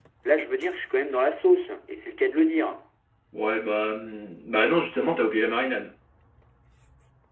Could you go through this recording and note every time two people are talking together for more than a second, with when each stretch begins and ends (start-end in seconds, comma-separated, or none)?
none